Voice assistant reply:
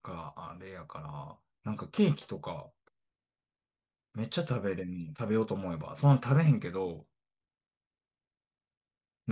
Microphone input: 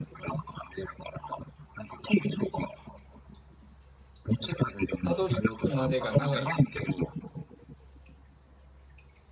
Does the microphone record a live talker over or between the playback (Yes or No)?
Yes